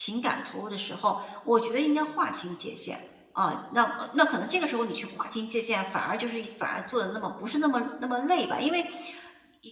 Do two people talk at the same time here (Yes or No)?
No